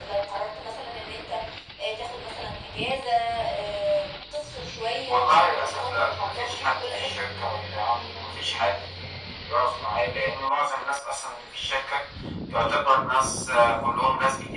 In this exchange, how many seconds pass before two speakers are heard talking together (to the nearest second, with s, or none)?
5 s